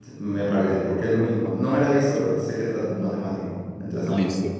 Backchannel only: No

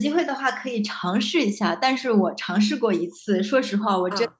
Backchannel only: Yes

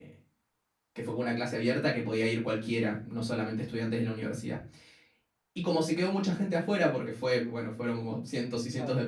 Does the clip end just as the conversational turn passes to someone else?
No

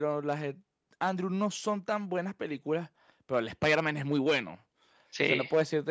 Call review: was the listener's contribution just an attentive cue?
Yes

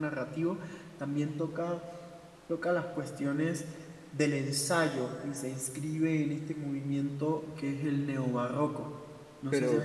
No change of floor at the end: No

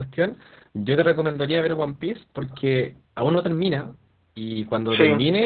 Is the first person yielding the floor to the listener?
No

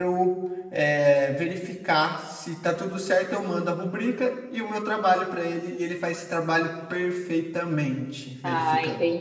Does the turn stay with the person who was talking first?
No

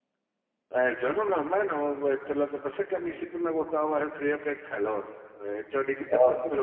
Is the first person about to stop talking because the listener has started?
No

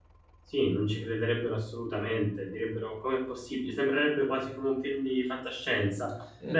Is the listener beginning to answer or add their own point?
No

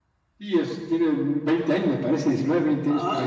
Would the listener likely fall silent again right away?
No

